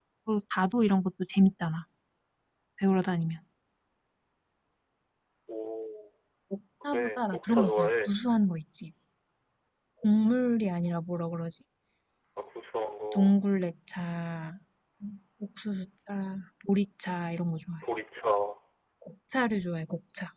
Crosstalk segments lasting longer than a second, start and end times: 6.9-8.1

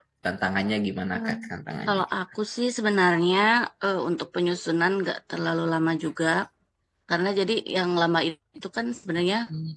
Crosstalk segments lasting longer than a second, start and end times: none

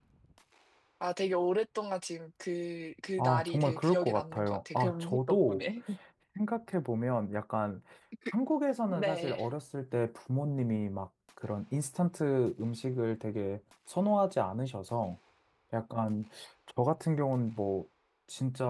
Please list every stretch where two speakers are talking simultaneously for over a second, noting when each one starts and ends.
3.2-5.6

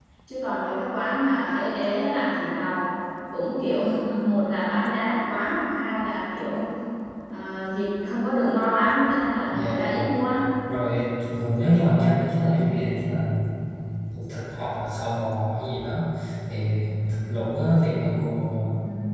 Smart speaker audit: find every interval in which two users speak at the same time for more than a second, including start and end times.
none

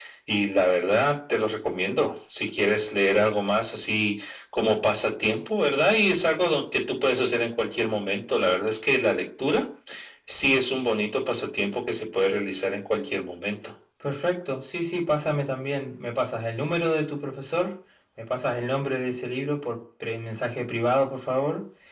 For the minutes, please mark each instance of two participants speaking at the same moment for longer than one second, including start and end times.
none

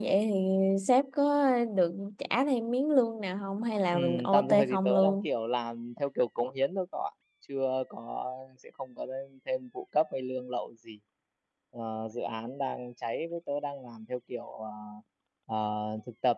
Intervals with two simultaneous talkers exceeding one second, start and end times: 3.9-5.3

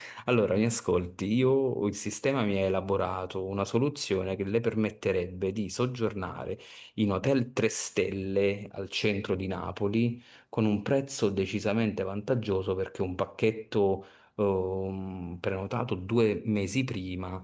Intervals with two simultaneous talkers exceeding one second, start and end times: none

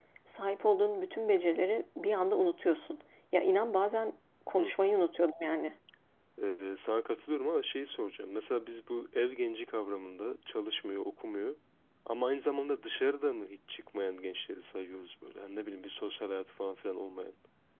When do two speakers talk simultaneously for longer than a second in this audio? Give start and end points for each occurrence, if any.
none

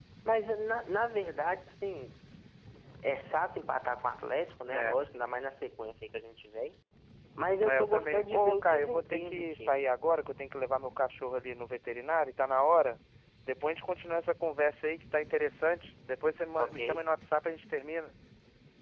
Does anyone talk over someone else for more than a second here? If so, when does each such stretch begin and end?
7.7-9.8

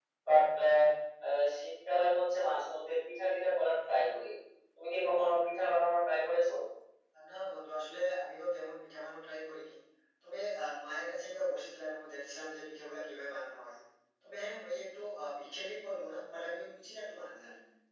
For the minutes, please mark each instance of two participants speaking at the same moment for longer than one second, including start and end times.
none

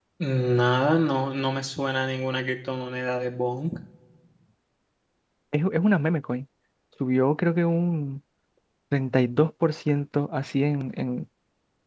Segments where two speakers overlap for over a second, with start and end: none

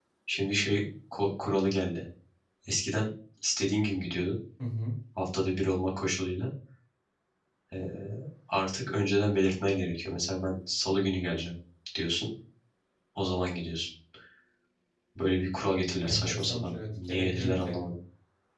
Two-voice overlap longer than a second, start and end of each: 16.0-17.9

